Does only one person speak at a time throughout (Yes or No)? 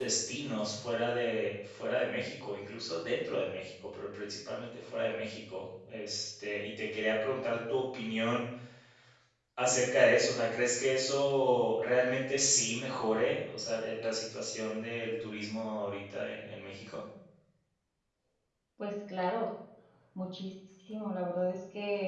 Yes